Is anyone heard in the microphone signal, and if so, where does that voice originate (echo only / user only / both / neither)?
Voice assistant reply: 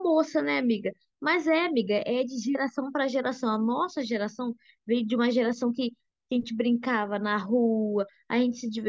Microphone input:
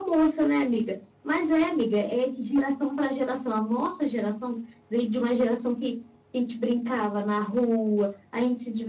echo only